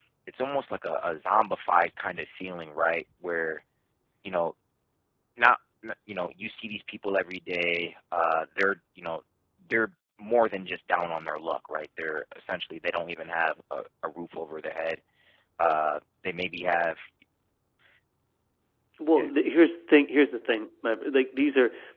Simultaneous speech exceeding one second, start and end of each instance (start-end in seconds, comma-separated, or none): none